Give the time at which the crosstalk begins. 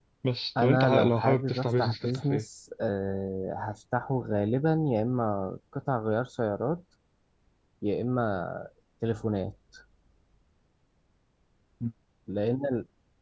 0.6 s

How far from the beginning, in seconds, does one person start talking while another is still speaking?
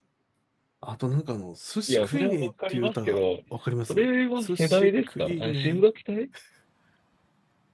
1.9 s

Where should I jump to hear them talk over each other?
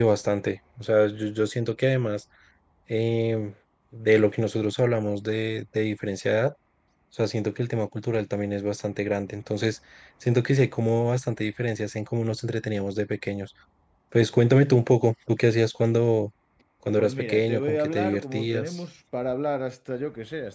17.0 s

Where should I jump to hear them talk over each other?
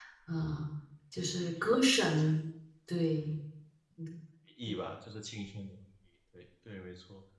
none

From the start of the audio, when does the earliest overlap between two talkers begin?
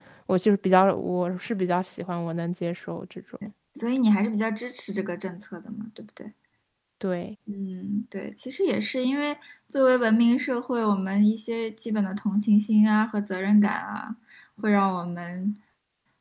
none

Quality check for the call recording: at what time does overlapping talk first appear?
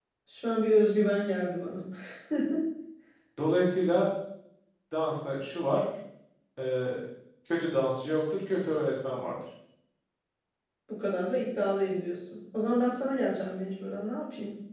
none

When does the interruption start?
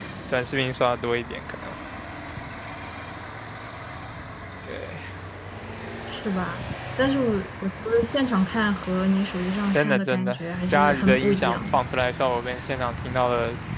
9.7 s

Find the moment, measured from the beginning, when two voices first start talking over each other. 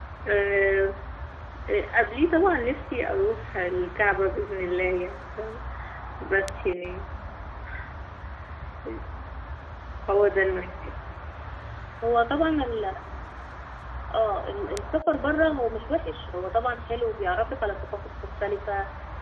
none

